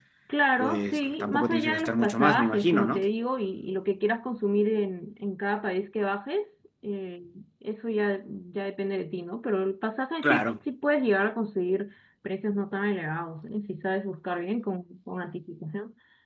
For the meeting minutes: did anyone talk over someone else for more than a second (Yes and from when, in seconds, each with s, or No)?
Yes, from 0.6 s